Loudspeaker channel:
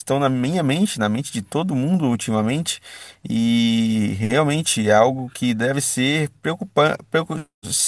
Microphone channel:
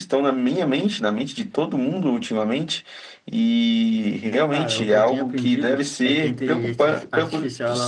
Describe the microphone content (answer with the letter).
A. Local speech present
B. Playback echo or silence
A